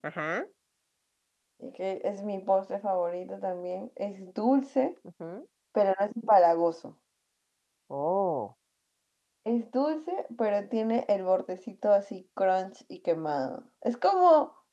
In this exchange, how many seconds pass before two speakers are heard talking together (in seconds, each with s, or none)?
none